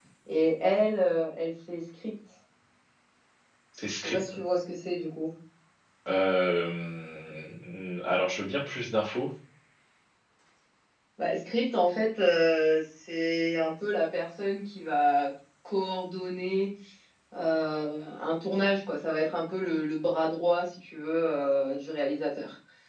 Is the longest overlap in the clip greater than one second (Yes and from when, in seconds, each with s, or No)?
No